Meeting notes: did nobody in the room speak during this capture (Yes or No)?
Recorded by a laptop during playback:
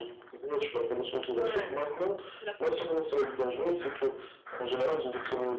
No